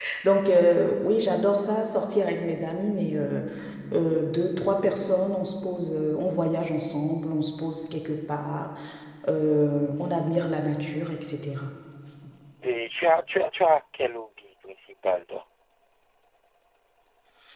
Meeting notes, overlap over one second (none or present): none